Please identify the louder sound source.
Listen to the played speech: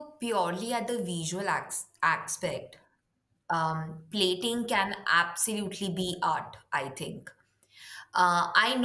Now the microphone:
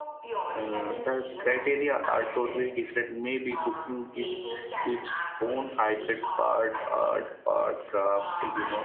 user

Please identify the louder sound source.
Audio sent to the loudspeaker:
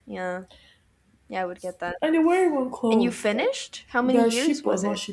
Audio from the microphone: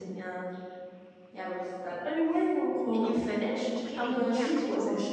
echo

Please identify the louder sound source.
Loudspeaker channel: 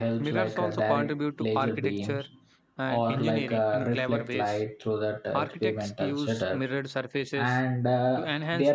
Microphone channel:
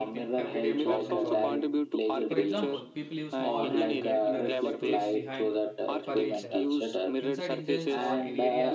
echo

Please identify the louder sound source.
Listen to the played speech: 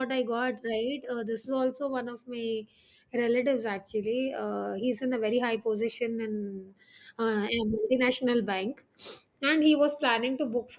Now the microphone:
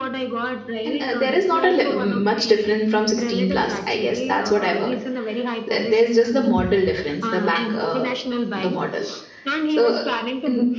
user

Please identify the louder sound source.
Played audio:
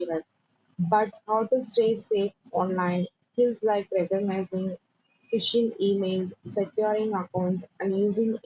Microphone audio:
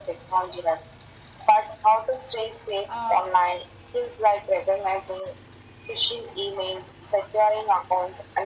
echo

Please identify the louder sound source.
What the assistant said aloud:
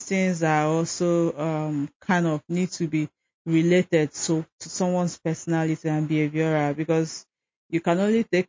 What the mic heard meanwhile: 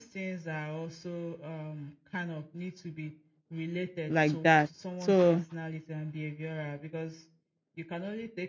user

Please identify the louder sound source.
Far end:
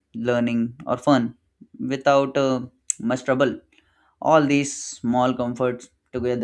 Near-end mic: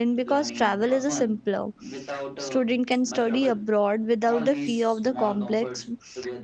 user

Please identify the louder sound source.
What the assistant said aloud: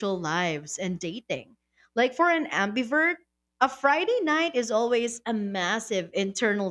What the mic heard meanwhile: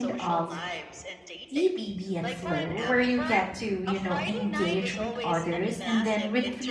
user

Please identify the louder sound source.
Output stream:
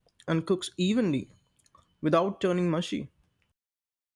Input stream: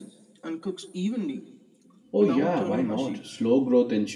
user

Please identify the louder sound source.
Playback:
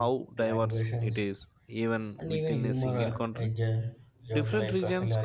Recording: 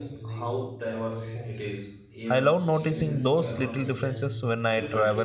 user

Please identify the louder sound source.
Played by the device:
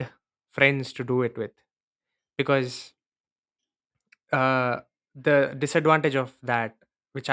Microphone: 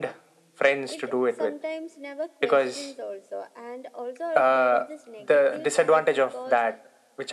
echo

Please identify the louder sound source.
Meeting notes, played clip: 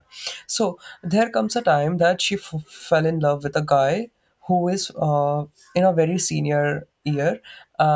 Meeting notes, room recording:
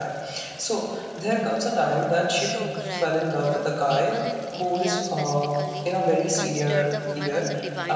echo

